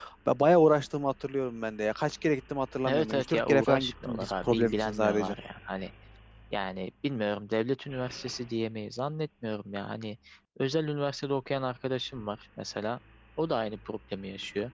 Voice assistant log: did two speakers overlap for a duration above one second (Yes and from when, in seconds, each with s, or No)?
Yes, from 2.9 s